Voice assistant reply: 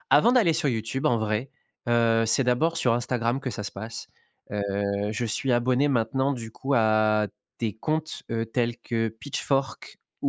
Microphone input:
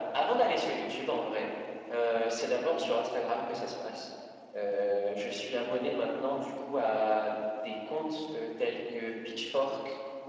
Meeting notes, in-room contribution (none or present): none